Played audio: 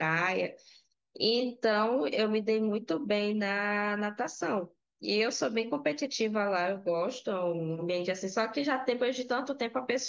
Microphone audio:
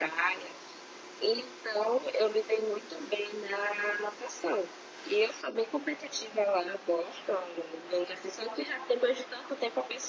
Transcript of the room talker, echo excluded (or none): none